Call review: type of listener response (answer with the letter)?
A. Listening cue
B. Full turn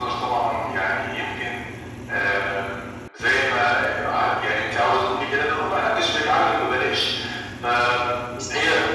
A